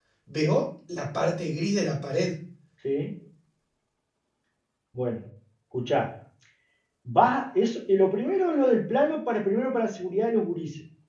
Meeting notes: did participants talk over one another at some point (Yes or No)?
No